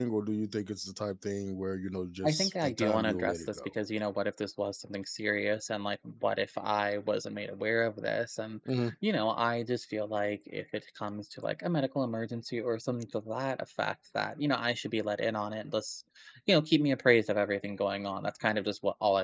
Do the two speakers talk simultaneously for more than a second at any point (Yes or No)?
Yes